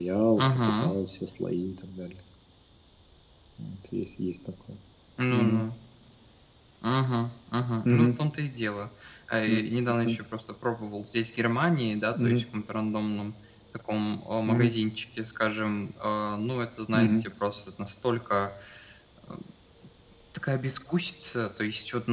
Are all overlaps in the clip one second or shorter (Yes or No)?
Yes